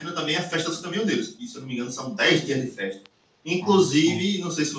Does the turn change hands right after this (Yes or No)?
No